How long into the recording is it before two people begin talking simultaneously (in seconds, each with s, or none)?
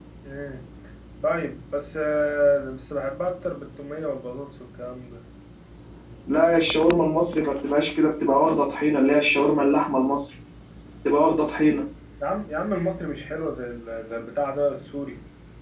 none